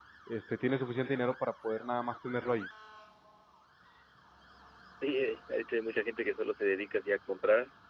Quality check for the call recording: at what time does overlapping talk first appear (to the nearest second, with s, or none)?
none